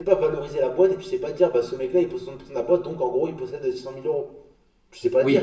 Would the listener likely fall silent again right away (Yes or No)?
No